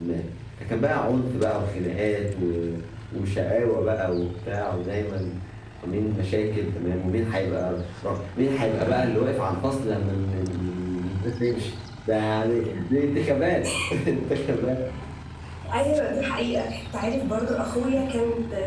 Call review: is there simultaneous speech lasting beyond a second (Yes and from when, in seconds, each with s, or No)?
No